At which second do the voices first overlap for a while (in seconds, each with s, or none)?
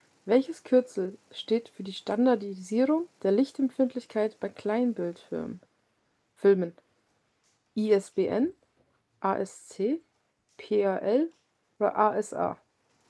none